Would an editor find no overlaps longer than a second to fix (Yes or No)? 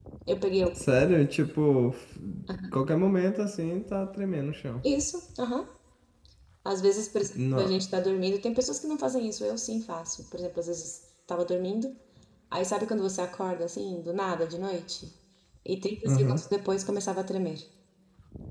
Yes